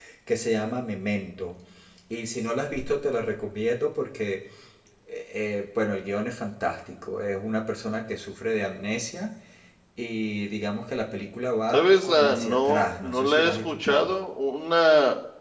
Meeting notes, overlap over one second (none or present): present